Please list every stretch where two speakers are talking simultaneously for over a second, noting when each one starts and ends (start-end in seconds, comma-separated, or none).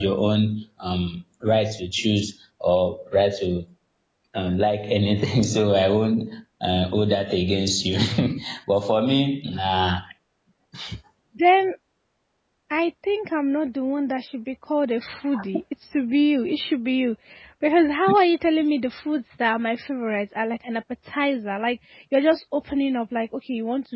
none